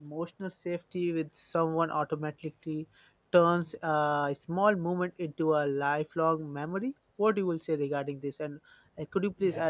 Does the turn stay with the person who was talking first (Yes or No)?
No